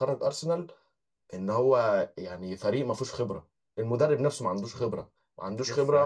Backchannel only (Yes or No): Yes